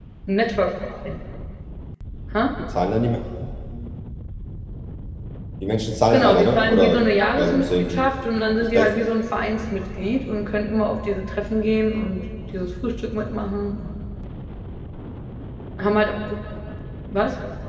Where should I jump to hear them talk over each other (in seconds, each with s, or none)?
6.1 s